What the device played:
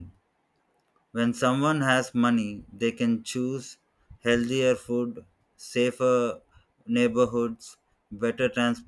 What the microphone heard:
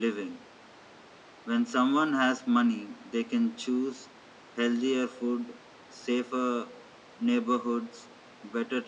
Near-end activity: none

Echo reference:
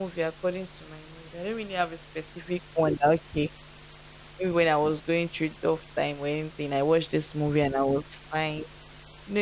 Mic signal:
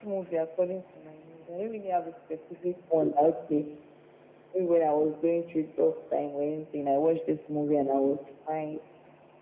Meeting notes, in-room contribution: none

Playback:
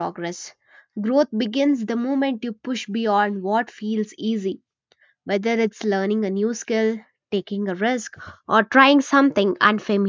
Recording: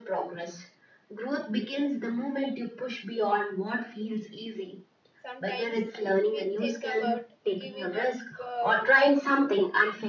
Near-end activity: present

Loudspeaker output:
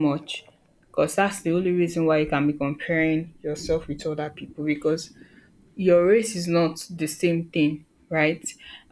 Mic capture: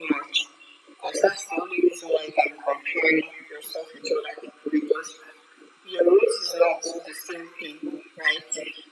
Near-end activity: none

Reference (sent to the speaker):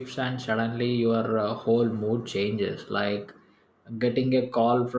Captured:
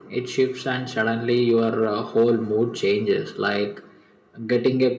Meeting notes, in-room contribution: none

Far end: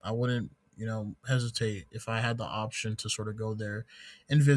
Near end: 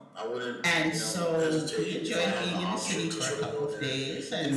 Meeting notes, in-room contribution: present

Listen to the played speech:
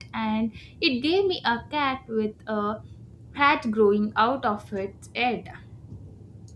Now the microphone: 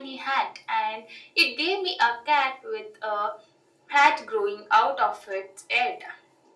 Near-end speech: none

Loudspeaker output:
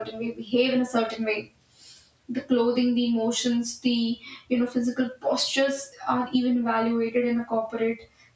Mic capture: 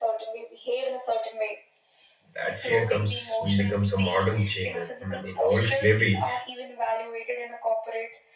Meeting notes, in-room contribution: present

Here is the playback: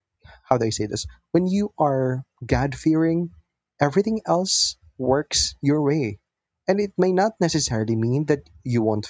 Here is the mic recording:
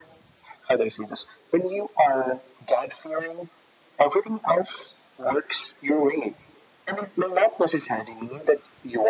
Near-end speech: none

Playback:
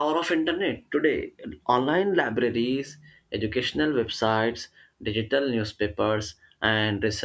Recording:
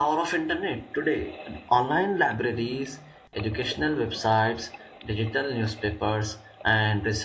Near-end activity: none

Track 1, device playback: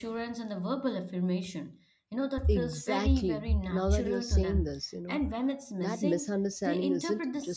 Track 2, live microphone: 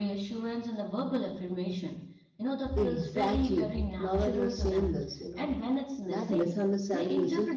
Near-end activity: none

